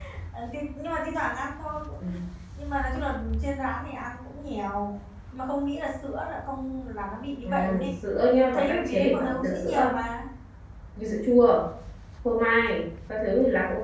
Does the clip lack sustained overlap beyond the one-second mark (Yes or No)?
No